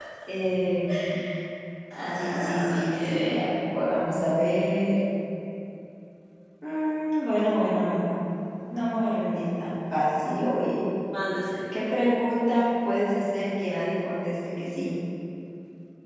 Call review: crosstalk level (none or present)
present